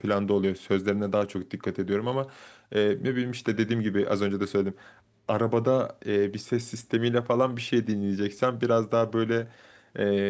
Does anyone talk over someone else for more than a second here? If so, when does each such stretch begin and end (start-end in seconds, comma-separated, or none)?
none